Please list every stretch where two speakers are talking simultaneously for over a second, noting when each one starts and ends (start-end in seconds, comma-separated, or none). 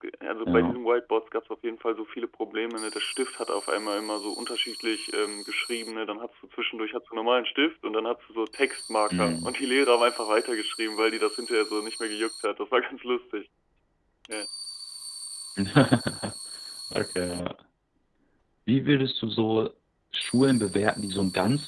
none